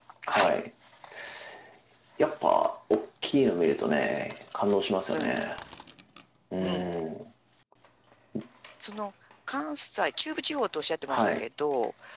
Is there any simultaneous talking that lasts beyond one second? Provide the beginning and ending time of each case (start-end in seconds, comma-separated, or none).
none